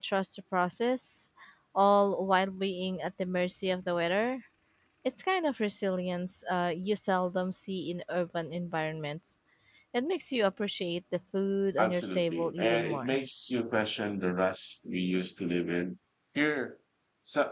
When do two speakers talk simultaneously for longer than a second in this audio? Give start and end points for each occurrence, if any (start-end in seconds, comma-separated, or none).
11.8-13.2